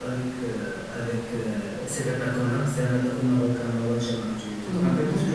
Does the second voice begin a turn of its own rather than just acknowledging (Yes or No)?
Yes